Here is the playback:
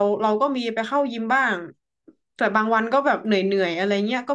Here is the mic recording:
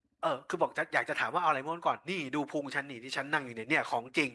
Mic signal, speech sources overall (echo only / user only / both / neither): user only